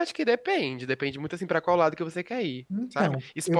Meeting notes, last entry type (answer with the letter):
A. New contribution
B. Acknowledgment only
B